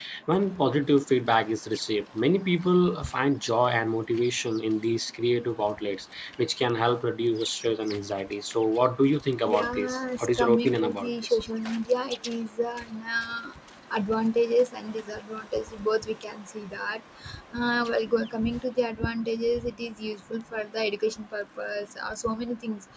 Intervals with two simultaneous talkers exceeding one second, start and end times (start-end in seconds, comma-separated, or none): 9.5-11.4